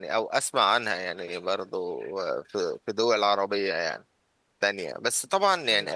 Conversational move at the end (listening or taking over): listening